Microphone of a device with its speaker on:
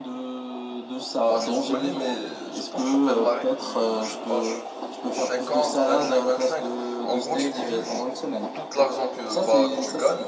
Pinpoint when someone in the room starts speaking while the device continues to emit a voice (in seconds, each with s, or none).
1.3 s